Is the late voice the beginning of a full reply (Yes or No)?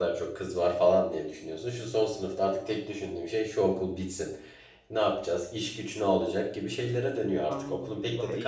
Yes